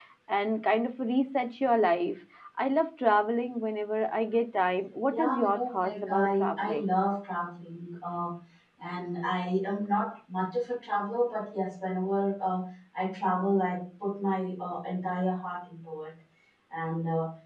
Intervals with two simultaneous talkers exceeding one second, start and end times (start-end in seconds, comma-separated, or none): 5.1-6.9